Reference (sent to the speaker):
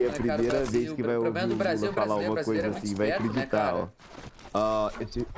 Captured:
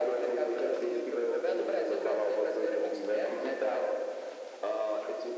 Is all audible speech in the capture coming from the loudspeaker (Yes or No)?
Yes